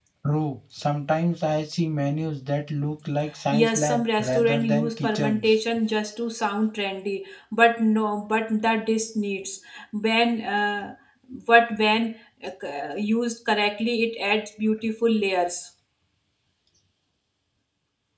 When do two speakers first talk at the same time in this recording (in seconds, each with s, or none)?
3.5 s